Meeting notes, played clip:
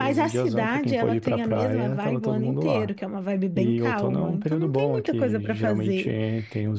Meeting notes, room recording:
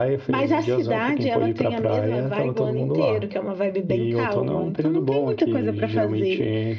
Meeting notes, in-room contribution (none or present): none